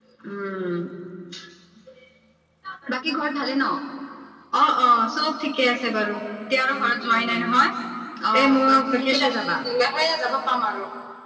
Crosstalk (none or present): present